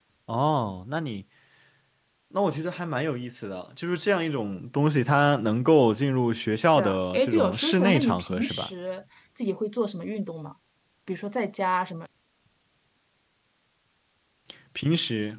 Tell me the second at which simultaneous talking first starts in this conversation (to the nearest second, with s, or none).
7 s